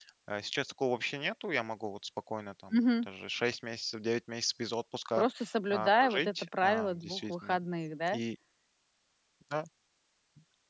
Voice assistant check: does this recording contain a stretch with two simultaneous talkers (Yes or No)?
Yes